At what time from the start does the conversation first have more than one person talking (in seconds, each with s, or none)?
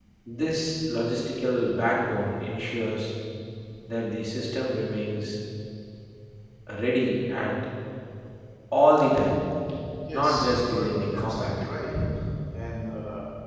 10.1 s